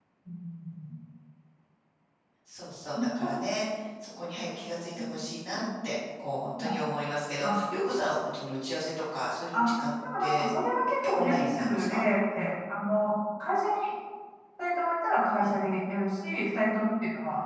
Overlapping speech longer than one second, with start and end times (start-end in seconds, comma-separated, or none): 10.2-12.0